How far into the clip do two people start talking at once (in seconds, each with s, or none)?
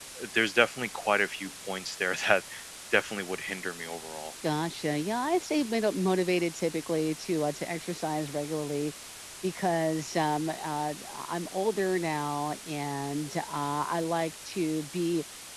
none